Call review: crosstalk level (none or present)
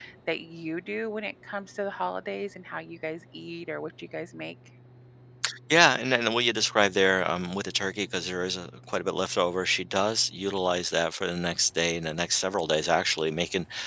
none